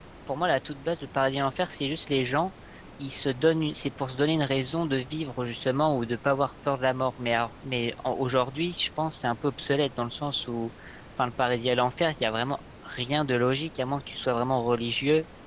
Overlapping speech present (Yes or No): No